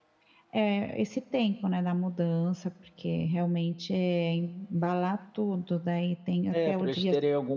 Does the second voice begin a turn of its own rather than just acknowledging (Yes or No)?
Yes